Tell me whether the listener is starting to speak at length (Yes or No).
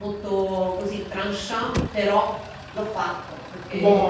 No